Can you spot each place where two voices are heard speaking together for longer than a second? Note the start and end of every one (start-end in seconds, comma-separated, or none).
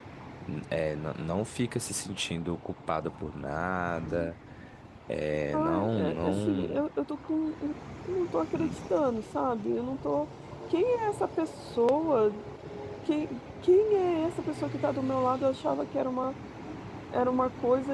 5.5-6.8